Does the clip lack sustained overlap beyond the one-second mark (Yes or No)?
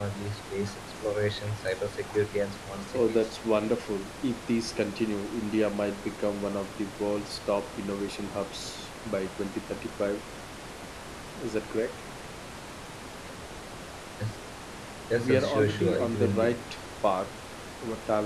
No